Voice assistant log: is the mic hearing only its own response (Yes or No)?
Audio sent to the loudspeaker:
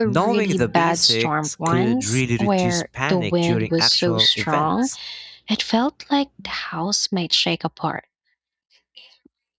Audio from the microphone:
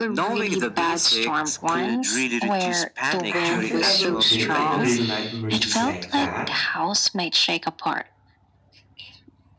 No